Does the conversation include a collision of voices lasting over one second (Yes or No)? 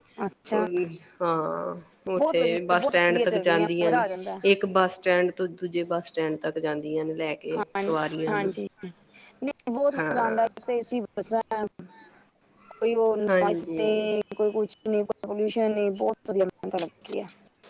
Yes